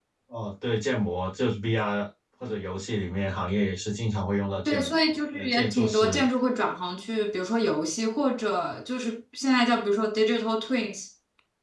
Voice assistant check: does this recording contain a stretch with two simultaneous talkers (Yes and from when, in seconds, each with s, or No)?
Yes, from 4.6 s